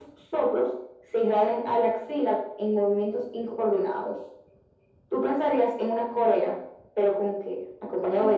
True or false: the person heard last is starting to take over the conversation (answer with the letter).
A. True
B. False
A